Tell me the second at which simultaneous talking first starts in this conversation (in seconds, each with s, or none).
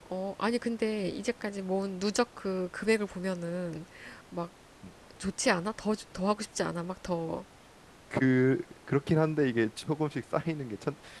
none